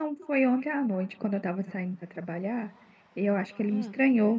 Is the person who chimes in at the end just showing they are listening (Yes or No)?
Yes